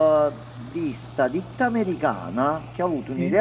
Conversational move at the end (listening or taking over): listening